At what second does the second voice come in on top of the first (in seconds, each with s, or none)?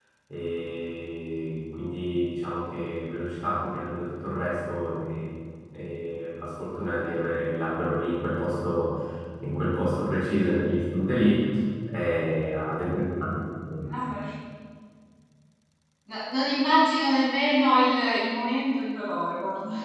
none